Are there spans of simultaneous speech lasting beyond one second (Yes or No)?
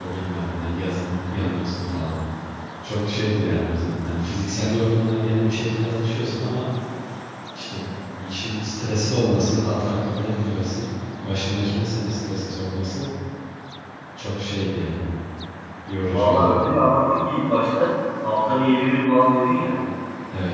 No